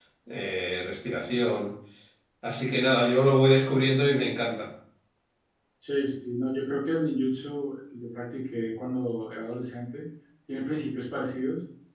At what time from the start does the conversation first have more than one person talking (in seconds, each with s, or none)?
none